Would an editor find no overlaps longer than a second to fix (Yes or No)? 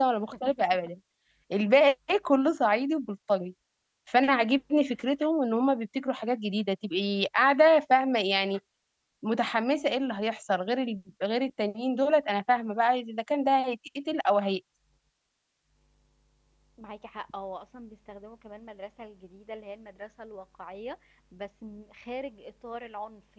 Yes